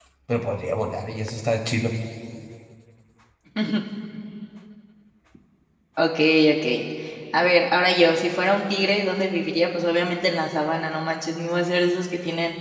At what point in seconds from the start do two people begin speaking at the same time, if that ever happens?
none

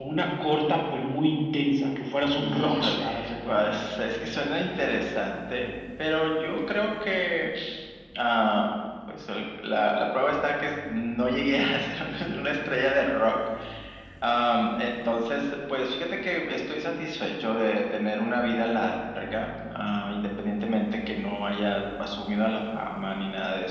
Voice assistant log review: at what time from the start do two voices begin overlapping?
2.4 s

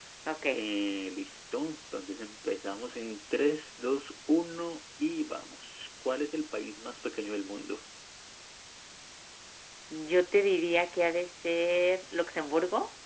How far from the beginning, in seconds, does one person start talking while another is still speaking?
none

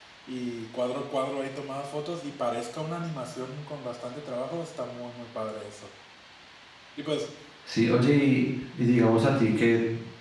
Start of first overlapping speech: none

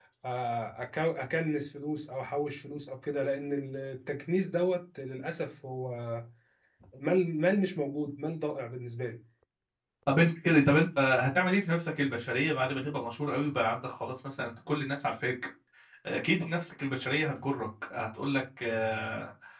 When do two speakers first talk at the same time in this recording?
none

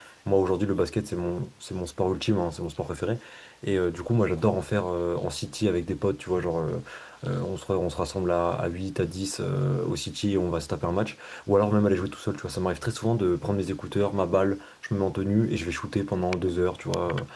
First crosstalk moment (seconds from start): none

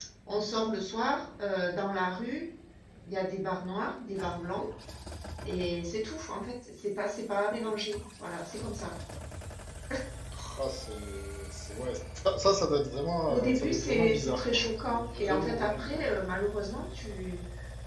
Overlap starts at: 13.3 s

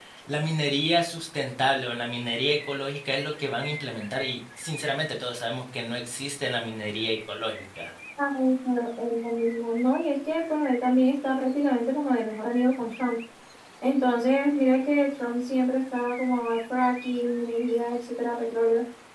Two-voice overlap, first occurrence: none

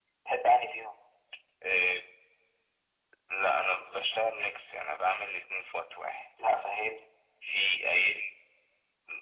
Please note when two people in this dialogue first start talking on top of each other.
none

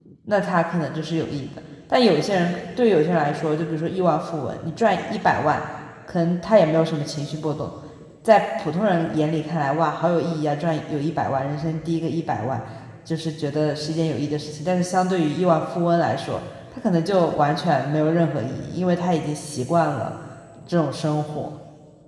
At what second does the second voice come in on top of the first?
none

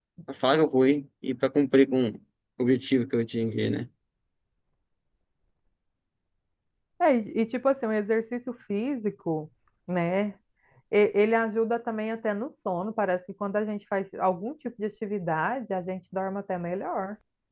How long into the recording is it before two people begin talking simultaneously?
none

